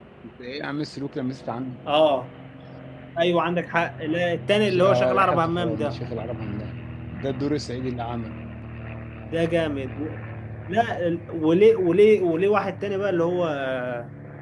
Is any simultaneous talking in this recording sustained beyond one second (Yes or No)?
Yes